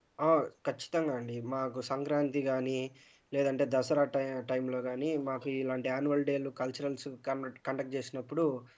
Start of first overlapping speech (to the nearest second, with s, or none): none